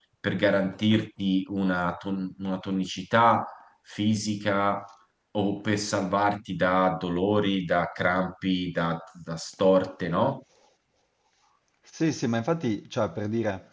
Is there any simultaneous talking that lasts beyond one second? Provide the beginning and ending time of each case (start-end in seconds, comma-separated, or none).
none